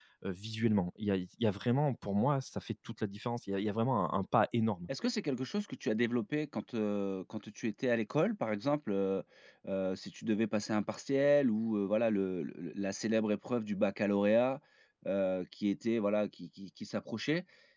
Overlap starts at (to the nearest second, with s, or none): none